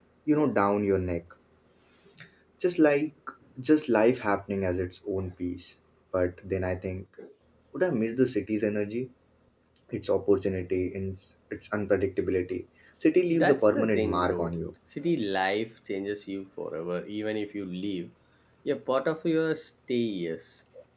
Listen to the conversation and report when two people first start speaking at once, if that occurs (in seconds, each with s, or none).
13.3 s